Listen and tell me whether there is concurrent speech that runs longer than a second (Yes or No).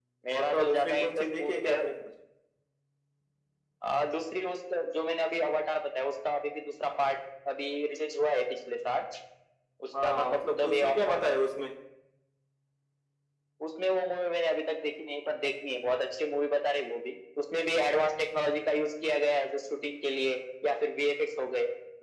Yes